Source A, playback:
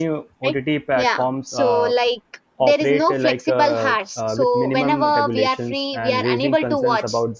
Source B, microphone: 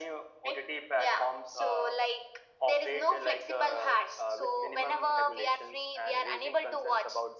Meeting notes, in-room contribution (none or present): none